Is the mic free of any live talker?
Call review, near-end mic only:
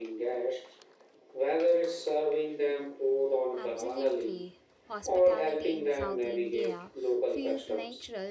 No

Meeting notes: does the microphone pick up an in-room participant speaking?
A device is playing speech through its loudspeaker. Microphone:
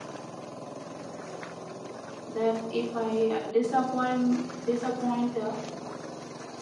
Yes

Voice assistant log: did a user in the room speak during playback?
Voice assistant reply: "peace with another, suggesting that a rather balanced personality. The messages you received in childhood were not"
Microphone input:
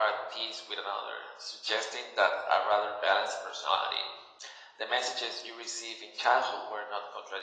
No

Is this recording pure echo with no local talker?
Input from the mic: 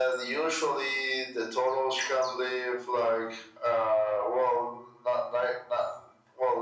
Yes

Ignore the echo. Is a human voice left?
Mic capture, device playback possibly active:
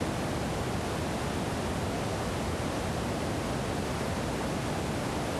No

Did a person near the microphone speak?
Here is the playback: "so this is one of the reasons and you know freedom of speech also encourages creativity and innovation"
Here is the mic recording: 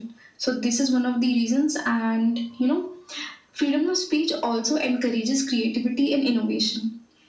No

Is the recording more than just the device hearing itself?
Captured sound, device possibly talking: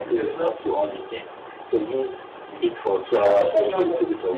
Yes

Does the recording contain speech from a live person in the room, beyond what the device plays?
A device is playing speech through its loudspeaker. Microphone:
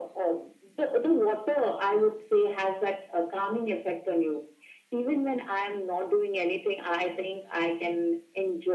No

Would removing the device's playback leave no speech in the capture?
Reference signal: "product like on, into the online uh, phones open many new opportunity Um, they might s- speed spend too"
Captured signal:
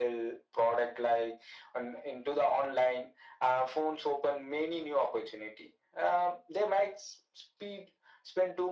Yes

